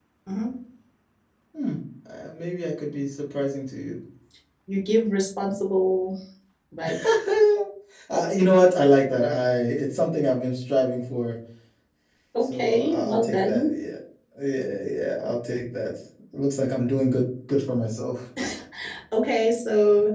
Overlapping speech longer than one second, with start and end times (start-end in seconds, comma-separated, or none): 12.4-13.7